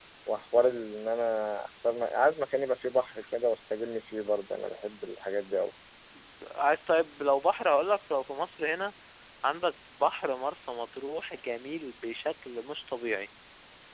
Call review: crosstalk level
none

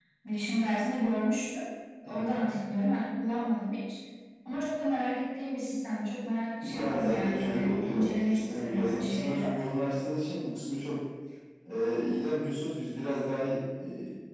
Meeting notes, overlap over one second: present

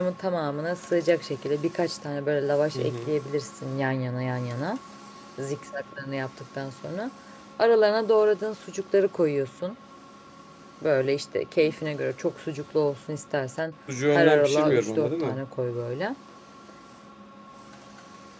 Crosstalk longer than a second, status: present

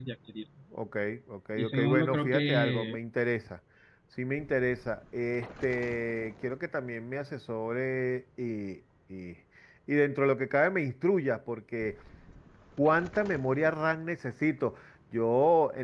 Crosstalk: present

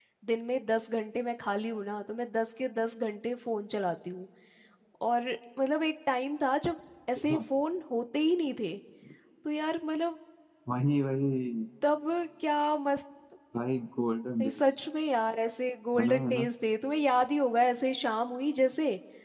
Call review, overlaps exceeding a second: none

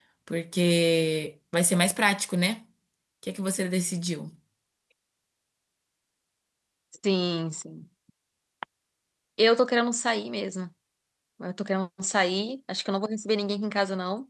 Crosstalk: none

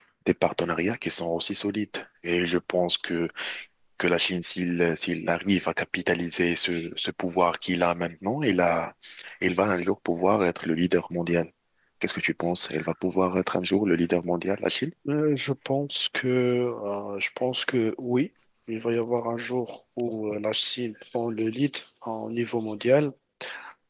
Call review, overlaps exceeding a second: none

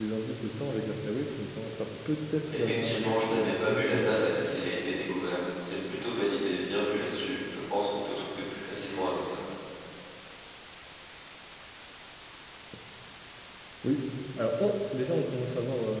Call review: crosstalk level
present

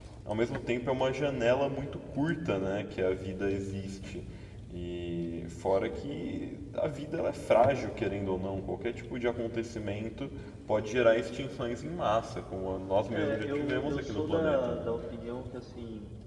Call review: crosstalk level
present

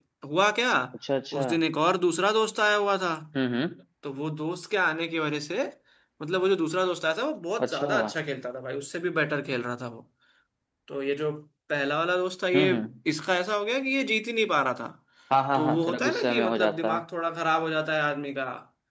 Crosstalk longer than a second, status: present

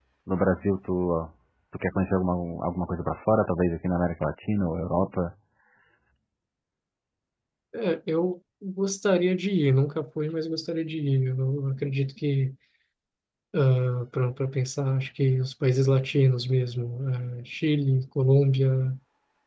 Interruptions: none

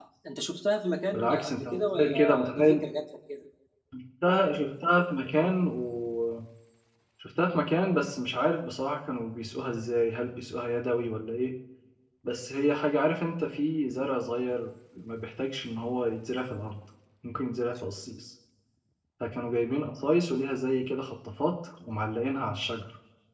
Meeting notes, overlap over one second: present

